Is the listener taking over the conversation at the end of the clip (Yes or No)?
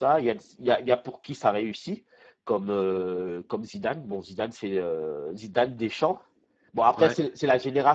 No